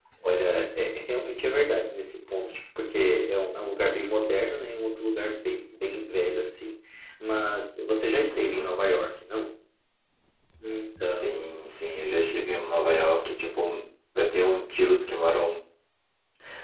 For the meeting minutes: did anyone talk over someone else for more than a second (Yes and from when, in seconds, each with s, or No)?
No